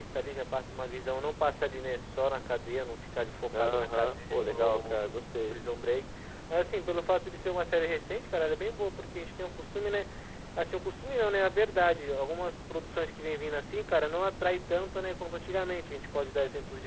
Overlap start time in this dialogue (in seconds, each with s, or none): 3.5 s